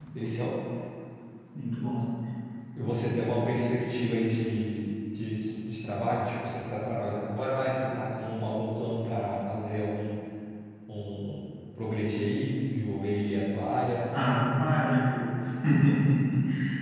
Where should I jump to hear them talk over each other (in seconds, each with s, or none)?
none